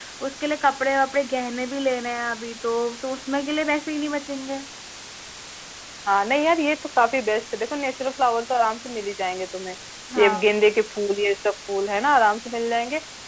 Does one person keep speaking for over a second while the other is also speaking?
No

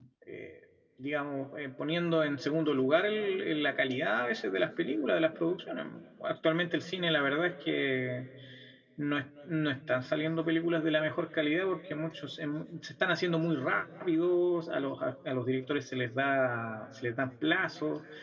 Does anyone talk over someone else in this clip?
No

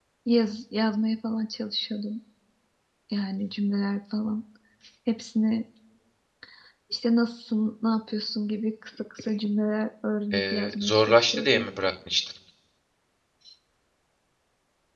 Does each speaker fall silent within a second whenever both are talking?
No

